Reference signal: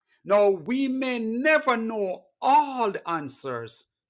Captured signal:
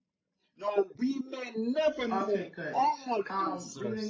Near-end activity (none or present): present